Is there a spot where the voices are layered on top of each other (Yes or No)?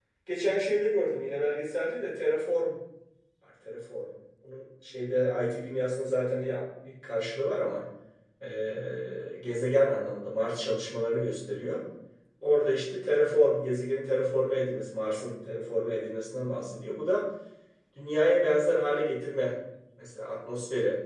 No